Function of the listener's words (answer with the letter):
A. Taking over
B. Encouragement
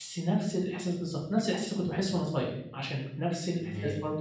B